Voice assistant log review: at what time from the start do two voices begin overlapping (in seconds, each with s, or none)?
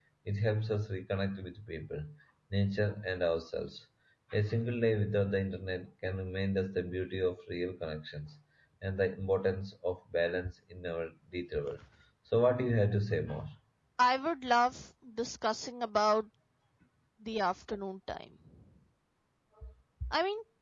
none